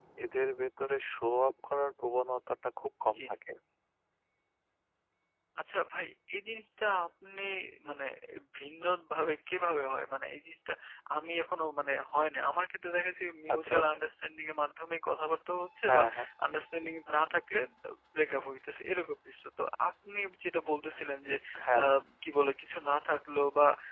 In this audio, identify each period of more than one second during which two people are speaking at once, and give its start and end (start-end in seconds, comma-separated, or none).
none